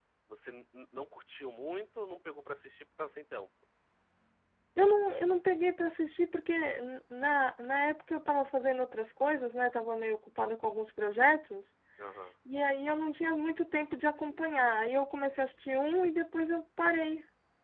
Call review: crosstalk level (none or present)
none